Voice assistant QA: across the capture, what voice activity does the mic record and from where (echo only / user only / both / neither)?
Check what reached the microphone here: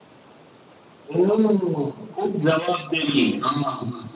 echo only